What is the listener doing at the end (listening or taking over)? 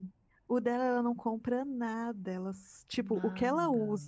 listening